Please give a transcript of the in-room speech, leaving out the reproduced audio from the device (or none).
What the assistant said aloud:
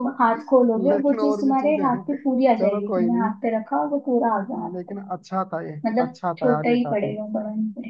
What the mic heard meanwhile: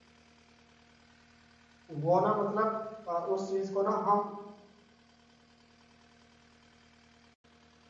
वो ना मतलब अ, उस चीज को ना हम